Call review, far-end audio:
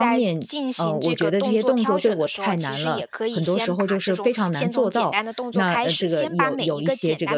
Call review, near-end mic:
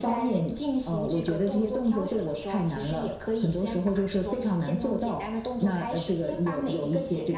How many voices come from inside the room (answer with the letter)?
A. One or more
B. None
B